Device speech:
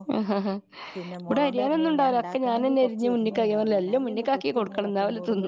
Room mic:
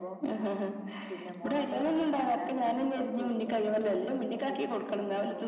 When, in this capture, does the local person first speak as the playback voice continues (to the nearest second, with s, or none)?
none